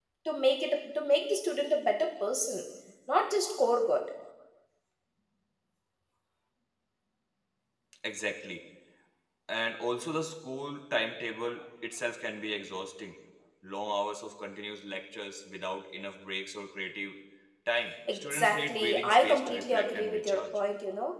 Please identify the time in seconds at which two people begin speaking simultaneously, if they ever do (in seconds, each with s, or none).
18.1 s